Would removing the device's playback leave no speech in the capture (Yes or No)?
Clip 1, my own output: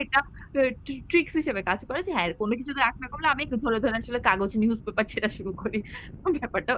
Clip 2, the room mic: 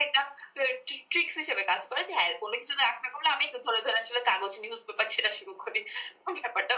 Yes